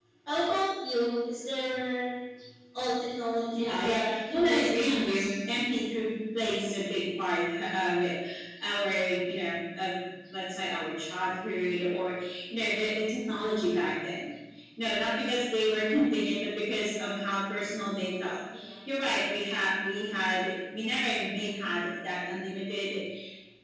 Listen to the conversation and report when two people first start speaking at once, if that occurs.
3.5 s

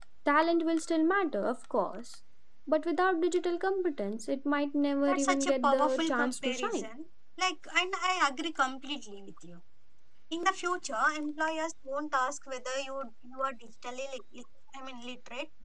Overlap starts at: 5.1 s

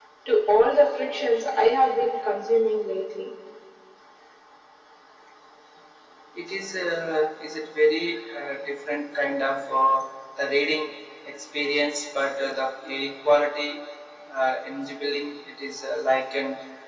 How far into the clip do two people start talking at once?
none

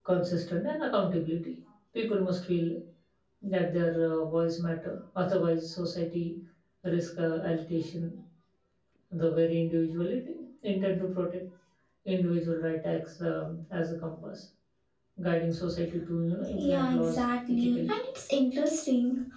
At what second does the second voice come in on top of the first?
16.6 s

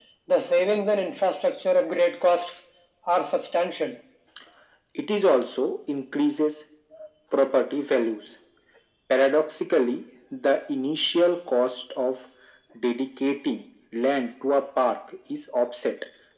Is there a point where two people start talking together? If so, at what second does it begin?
none

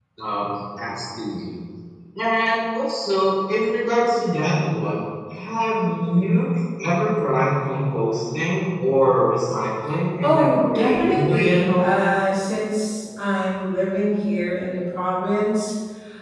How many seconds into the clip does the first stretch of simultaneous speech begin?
10.2 s

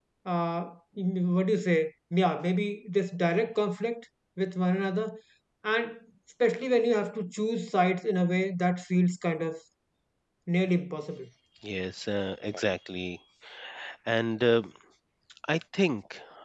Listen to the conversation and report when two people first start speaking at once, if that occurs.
none

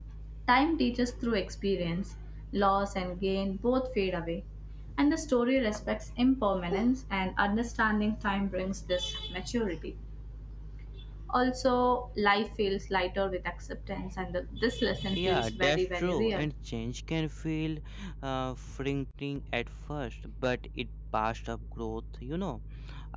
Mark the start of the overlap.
15.1 s

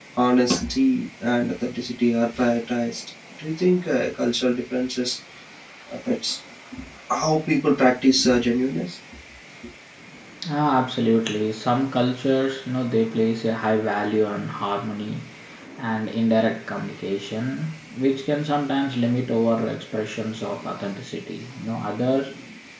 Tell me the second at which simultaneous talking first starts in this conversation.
none

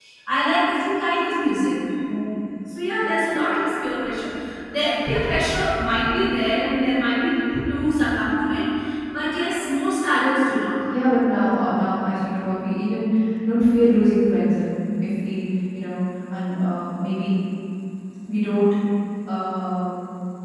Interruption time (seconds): none

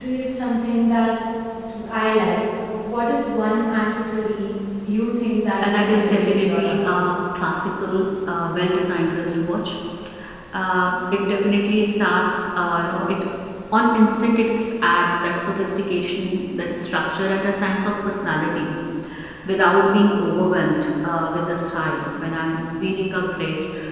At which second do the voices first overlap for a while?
5.6 s

